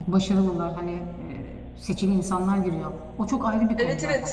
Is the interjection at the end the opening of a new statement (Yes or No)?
No